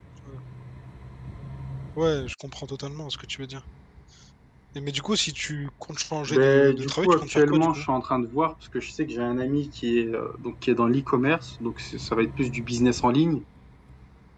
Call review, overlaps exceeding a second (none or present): present